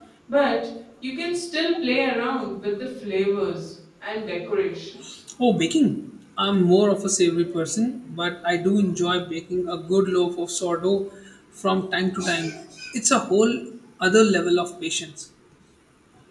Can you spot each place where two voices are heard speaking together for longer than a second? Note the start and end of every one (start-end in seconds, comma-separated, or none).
none